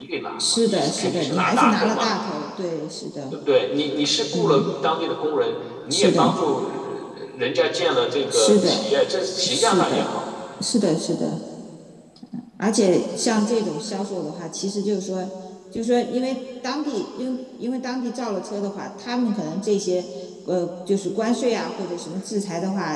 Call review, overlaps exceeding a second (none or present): present